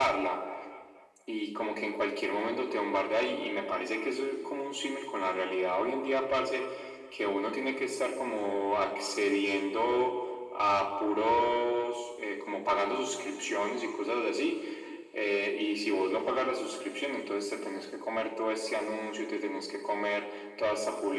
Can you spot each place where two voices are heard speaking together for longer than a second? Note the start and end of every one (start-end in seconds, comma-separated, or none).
none